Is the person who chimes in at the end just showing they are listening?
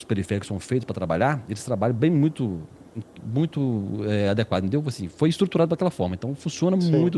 Yes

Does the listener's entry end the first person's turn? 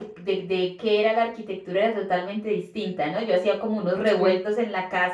No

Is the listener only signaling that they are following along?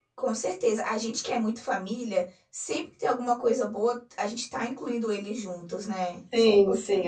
No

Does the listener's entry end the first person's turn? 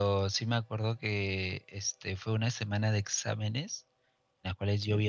No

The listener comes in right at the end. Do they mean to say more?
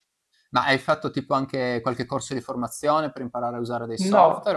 Yes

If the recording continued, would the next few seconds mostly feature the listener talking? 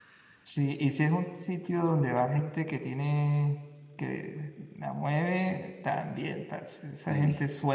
No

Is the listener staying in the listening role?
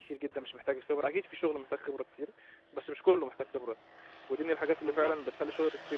Yes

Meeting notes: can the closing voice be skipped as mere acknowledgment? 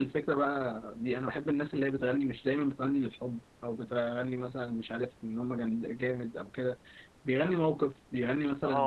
No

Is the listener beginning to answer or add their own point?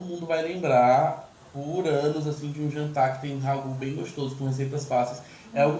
Yes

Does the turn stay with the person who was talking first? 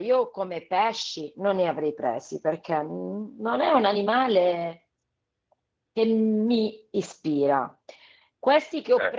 Yes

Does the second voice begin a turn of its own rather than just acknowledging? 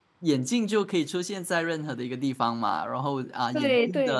No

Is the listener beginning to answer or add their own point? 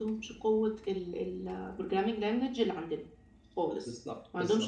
No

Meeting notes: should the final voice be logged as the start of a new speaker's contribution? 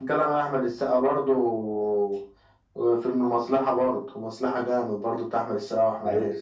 Yes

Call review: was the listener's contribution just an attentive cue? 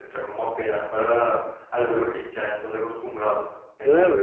No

